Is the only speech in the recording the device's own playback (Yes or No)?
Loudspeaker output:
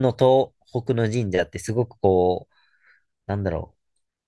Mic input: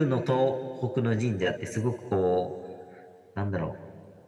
Yes